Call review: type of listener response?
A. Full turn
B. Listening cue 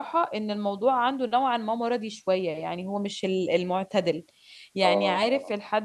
B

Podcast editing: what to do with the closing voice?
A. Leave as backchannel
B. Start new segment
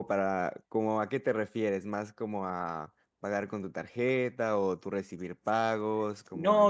B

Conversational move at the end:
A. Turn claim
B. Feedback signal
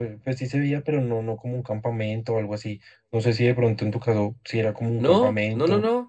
A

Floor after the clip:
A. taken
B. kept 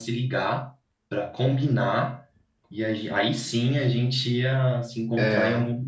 B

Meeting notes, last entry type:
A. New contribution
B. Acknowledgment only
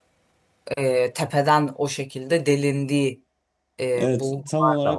A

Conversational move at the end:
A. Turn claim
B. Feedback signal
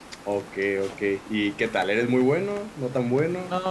A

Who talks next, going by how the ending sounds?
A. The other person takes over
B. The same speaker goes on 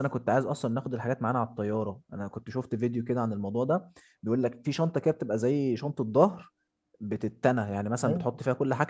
B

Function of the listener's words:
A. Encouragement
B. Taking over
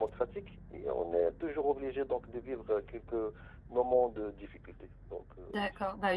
B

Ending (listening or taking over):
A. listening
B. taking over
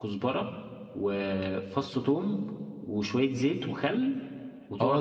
B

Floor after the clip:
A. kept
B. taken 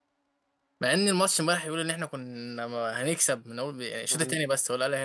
A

